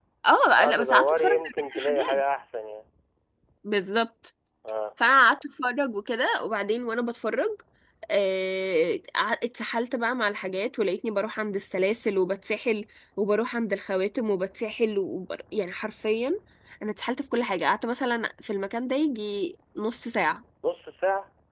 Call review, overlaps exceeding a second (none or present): present